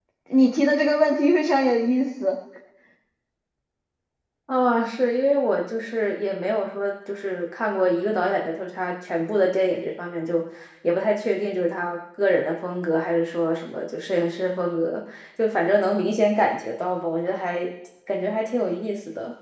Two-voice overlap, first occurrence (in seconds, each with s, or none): none